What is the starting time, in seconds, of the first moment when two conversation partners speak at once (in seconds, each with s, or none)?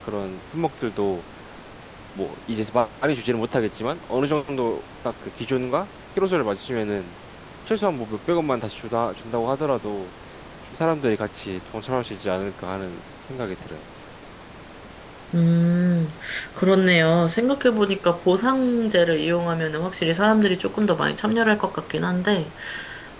none